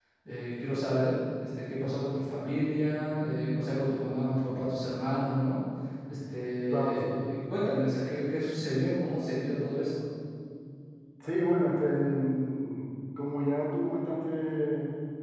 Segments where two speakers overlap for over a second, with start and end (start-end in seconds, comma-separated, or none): none